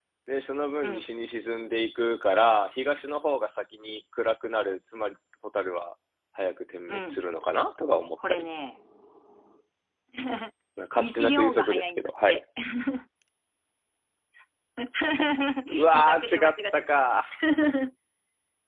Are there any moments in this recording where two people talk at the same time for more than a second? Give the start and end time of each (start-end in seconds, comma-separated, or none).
11.0-12.4, 15.9-17.2